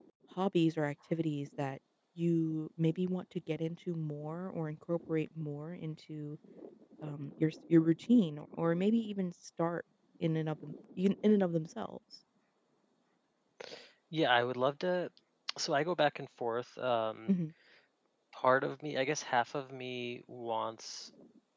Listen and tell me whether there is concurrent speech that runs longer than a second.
No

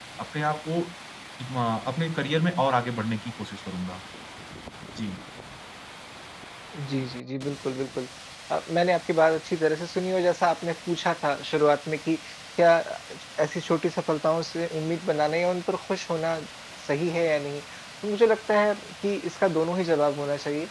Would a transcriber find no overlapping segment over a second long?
Yes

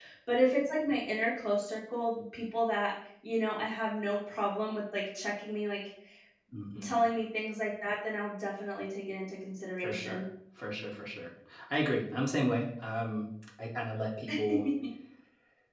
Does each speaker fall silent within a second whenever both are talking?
Yes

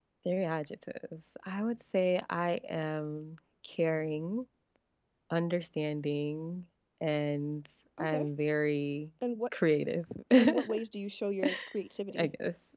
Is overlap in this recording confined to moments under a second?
Yes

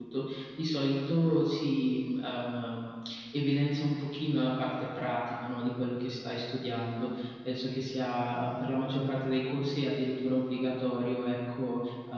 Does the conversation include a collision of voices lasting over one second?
No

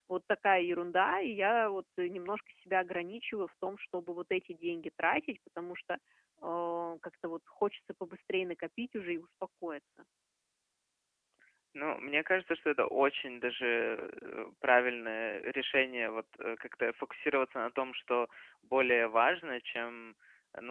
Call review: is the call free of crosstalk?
Yes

